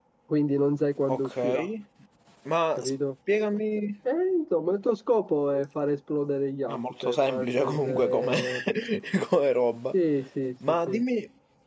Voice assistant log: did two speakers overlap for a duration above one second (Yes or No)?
Yes